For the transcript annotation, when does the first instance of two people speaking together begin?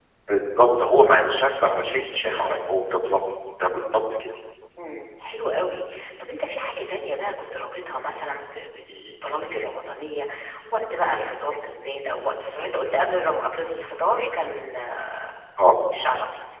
none

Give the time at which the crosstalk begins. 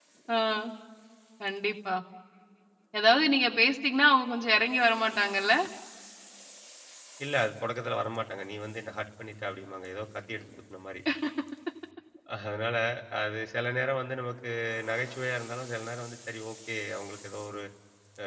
none

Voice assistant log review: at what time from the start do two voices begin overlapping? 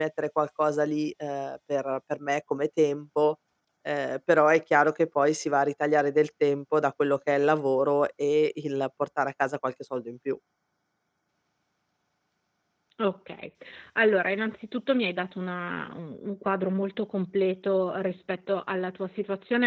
none

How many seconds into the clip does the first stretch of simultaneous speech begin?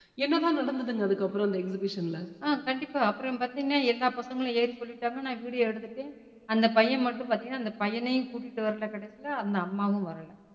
none

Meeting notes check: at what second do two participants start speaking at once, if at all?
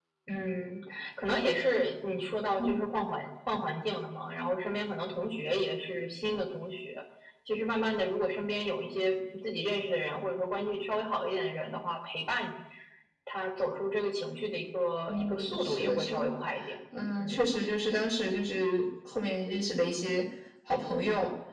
15.1 s

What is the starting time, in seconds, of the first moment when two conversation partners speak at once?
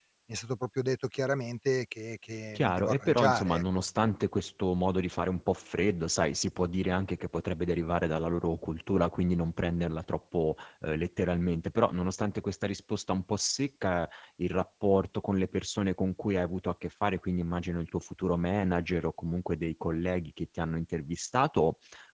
2.5 s

